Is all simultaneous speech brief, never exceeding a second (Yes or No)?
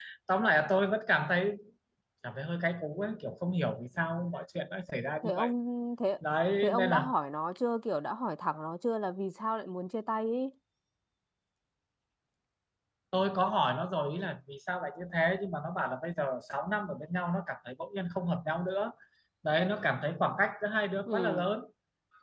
Yes